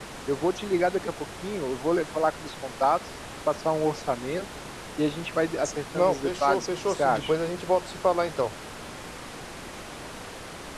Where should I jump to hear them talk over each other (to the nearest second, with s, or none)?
6 s